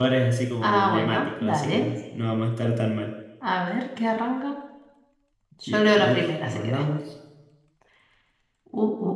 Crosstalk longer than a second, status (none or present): present